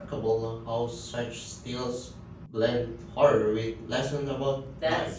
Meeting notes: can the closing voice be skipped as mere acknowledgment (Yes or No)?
No